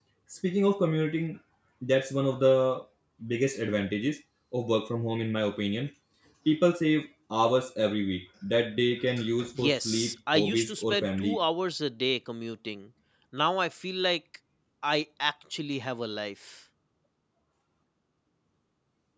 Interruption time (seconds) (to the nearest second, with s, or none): 10 s